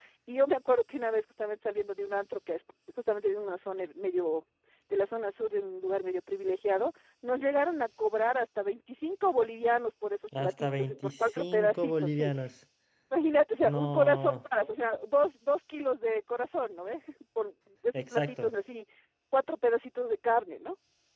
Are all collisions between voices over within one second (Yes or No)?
No